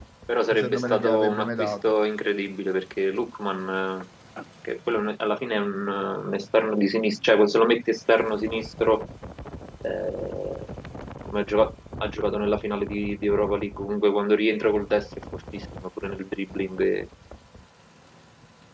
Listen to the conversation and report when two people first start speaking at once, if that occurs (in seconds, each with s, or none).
0.5 s